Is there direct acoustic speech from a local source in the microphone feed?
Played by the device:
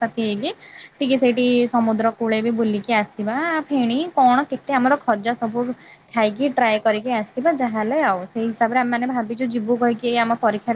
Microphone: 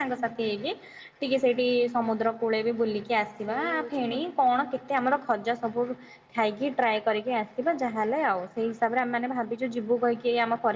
Yes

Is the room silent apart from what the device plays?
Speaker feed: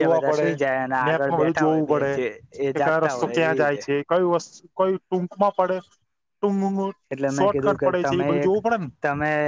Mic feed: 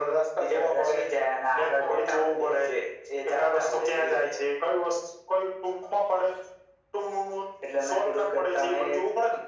Yes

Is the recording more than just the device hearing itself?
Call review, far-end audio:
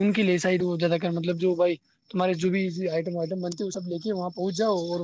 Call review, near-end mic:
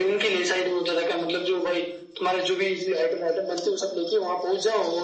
No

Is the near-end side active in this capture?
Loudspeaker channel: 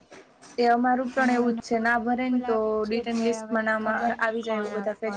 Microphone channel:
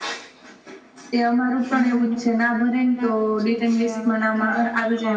No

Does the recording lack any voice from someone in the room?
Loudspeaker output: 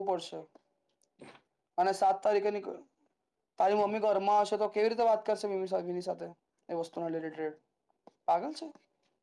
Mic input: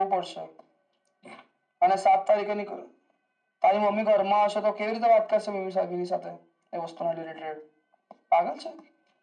Yes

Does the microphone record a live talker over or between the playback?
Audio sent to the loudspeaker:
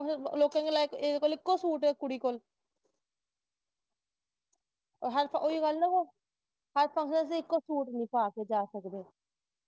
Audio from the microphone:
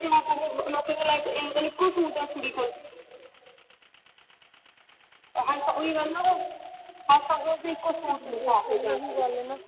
Yes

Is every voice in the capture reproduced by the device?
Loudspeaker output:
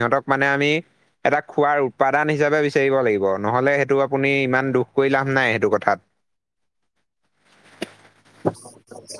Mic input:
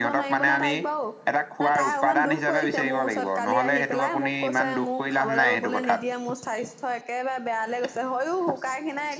No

